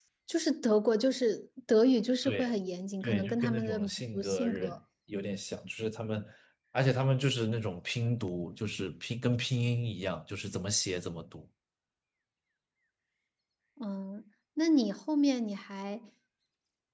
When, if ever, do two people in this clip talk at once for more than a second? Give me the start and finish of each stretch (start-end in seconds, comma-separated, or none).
3.0-4.8